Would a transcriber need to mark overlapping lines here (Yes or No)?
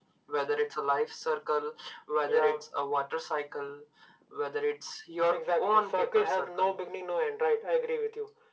Yes